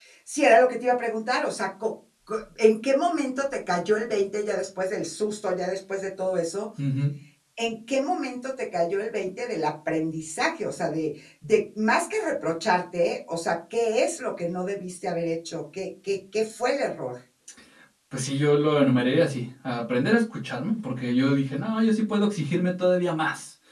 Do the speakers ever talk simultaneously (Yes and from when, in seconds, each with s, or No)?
No